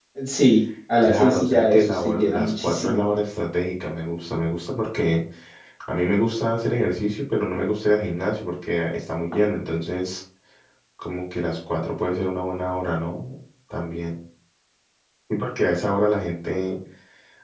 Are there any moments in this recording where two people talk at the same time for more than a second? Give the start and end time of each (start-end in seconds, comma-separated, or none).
1.0-3.0